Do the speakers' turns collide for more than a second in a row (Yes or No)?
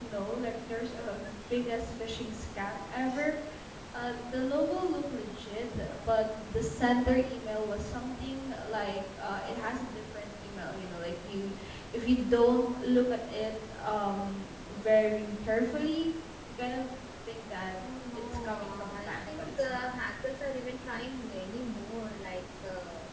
Yes